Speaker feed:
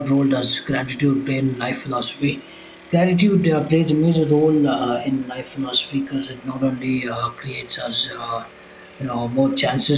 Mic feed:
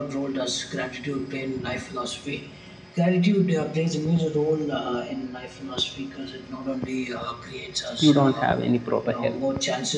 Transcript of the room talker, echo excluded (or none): you don't have any proper health